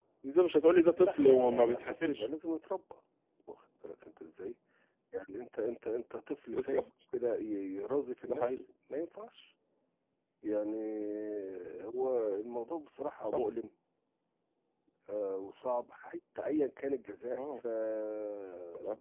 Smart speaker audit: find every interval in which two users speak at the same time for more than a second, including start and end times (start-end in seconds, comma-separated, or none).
1.0-2.2